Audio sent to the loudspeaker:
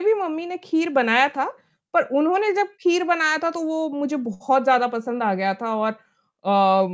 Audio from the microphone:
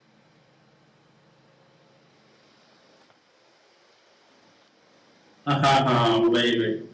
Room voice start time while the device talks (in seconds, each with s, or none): 5.5 s